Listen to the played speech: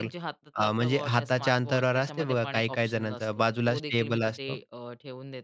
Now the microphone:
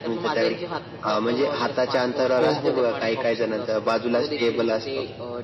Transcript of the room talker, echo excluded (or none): हो, हो.